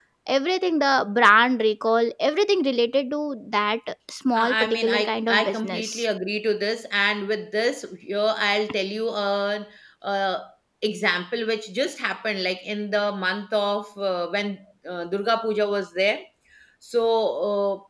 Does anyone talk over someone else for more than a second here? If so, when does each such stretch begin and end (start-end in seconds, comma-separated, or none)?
4.3-6.0